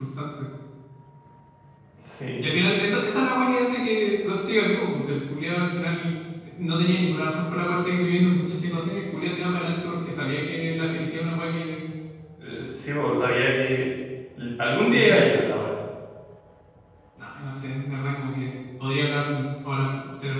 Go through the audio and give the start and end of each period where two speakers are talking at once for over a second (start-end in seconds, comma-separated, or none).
none